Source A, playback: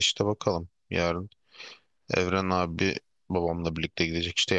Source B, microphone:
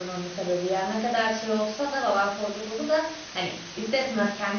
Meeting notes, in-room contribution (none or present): present